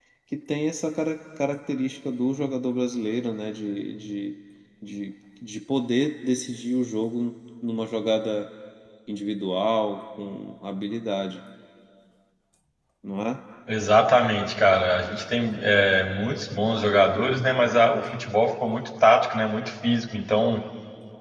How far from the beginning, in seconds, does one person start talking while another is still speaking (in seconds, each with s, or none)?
none